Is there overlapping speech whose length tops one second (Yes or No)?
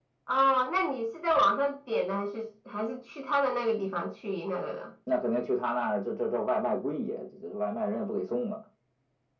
No